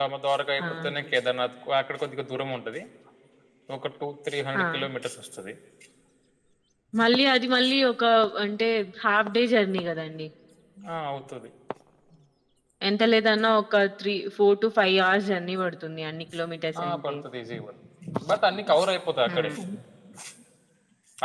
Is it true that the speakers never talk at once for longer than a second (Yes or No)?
Yes